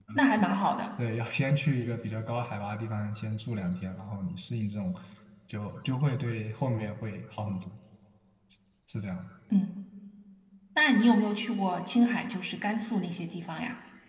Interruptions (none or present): none